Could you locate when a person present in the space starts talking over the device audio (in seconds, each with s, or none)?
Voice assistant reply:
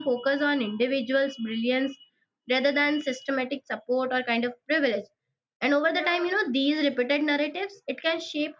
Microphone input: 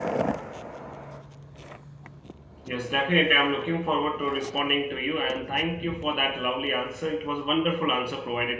2.7 s